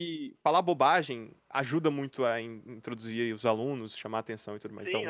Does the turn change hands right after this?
Yes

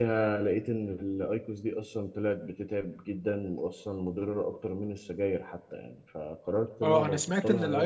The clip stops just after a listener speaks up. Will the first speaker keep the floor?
No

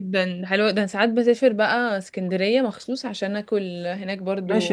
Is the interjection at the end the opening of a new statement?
Yes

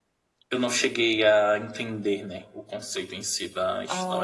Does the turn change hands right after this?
Yes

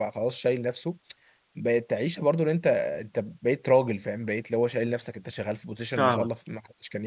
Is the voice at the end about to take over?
No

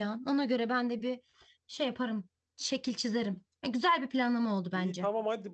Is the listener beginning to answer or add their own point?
Yes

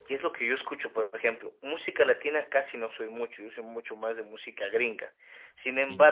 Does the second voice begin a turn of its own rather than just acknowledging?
No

